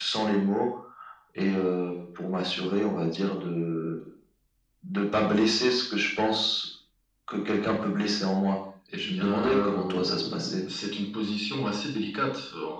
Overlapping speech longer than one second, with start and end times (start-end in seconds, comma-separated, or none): 8.9-10.6